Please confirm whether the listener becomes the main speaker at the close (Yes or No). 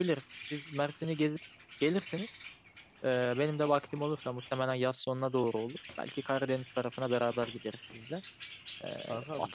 No